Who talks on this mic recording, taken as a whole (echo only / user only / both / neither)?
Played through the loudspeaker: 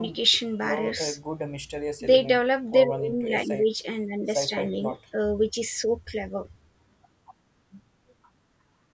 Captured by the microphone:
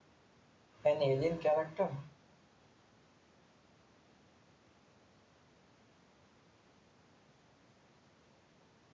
user only